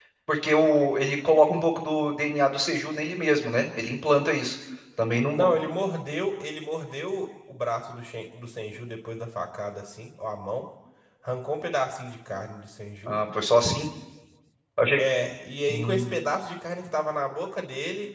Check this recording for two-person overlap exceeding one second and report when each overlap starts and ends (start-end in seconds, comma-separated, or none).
none